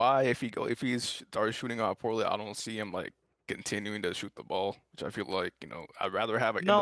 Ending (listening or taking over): taking over